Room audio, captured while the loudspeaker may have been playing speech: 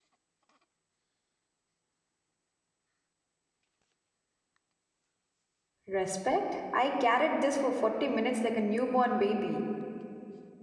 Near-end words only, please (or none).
Respect? I carried this for 40 minutes like a newborn baby.